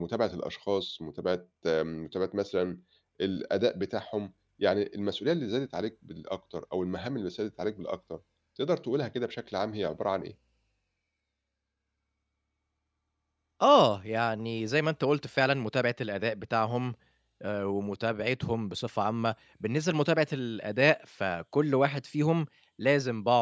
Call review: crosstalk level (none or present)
none